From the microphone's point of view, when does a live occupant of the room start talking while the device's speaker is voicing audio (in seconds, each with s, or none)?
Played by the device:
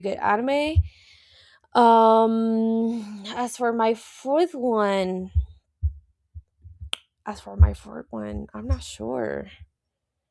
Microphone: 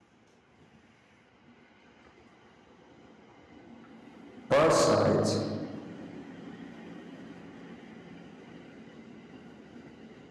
4.5 s